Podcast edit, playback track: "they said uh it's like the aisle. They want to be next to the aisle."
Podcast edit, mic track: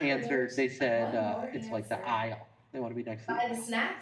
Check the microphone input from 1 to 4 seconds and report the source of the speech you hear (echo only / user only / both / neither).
both